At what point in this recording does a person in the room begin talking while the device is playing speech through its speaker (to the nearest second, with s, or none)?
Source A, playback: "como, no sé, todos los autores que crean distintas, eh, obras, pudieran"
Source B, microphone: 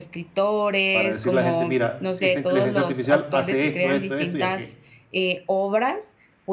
1 s